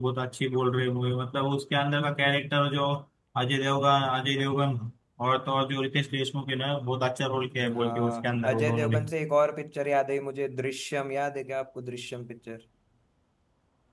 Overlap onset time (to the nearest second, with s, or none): 8 s